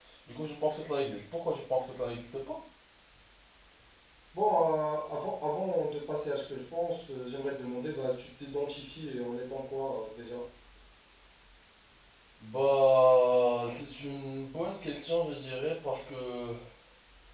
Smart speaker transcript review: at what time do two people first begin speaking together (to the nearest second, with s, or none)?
none